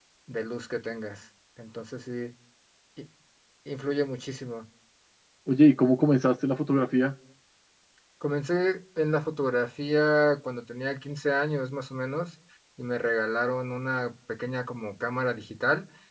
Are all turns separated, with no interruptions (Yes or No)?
Yes